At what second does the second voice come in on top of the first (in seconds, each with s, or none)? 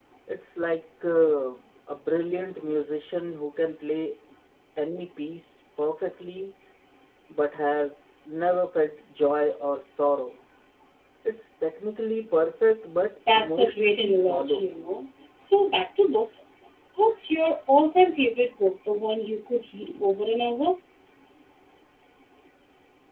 13.3 s